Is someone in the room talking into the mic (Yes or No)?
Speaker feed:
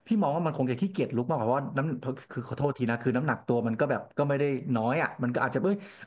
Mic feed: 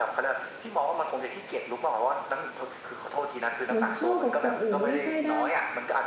Yes